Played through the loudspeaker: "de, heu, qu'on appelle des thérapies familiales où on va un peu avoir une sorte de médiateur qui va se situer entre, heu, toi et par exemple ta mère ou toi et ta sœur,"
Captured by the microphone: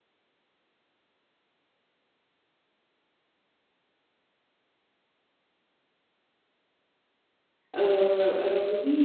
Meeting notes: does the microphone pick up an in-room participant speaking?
Yes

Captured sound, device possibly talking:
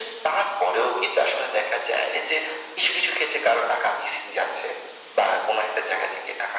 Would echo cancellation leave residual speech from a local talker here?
No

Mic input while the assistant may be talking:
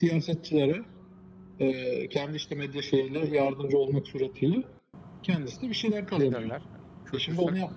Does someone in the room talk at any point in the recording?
Yes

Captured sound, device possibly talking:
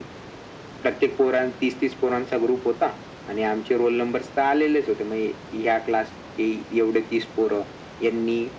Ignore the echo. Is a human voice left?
No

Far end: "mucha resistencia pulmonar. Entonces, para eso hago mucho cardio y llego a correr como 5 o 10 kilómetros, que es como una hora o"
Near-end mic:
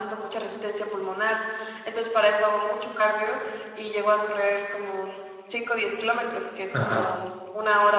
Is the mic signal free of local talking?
No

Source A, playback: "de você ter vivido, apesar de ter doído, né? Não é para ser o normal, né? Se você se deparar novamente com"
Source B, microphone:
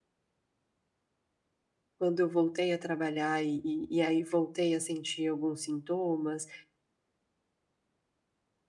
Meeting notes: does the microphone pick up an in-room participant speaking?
Yes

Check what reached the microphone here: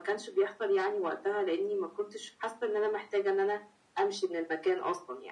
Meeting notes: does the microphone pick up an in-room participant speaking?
No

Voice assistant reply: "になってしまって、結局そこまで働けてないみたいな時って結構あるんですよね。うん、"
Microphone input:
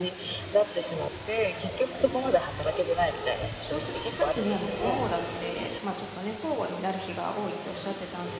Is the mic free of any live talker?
No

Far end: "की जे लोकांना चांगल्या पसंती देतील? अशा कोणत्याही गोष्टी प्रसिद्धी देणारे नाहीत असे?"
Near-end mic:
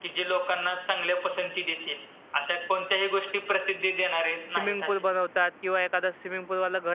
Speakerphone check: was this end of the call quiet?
No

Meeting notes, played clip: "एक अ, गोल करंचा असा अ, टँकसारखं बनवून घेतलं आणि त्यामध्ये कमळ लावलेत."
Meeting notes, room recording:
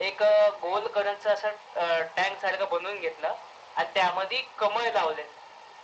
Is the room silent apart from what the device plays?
Yes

